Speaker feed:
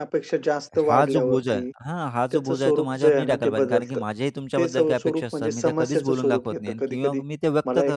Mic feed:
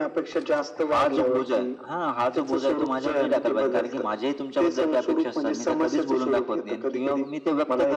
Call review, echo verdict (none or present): present